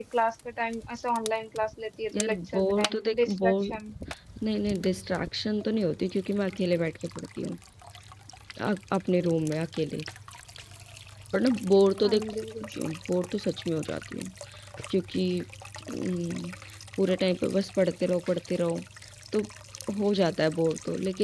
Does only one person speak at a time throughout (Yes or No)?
No